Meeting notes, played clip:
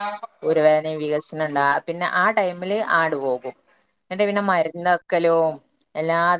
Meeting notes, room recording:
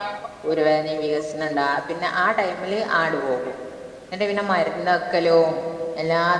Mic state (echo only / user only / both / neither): echo only